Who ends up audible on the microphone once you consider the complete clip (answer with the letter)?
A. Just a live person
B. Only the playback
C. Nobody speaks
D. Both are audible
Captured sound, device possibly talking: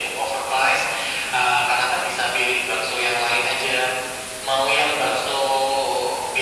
B